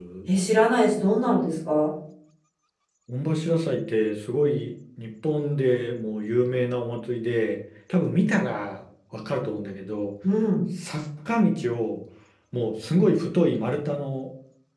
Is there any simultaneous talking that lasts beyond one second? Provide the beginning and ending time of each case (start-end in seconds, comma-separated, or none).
none